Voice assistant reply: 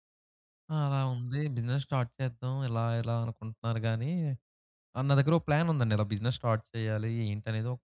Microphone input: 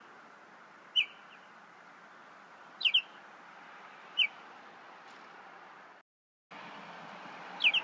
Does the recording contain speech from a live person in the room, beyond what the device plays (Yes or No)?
No